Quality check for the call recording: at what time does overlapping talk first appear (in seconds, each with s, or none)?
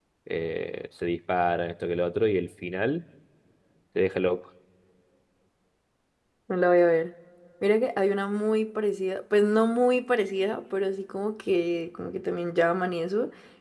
none